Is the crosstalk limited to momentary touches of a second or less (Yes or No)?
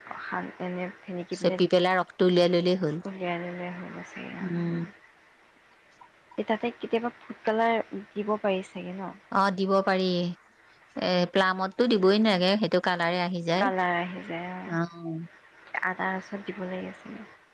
Yes